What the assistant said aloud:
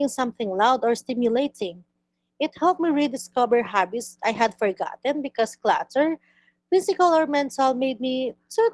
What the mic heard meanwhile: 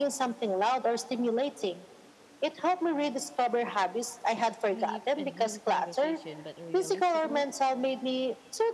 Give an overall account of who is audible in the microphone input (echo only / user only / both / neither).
both